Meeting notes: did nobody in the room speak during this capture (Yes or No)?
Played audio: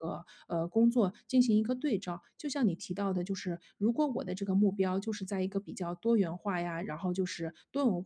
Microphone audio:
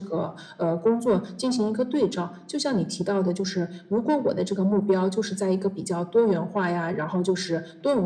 Yes